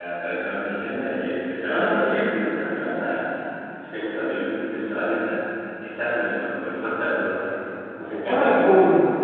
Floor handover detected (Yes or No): Yes